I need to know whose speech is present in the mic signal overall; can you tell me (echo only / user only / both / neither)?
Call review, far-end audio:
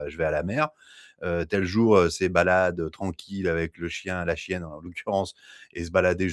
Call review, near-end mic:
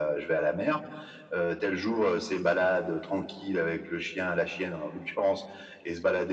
echo only